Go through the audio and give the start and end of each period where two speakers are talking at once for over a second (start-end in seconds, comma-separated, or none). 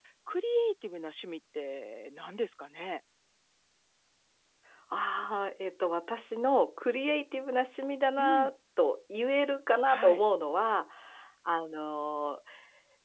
none